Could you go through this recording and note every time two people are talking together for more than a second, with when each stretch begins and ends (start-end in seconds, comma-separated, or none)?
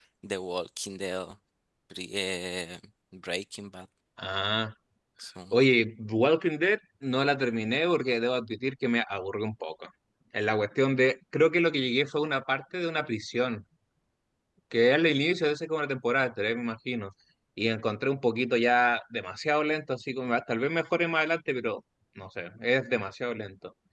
none